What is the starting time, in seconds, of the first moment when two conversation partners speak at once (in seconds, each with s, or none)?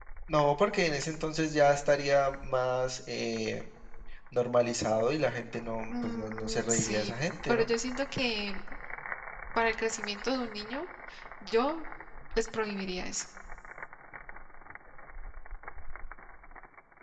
5.9 s